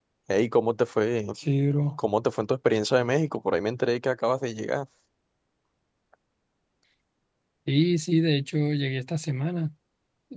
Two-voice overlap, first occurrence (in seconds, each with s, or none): none